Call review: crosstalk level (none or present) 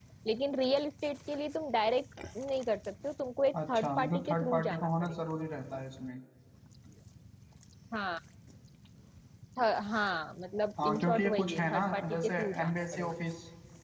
present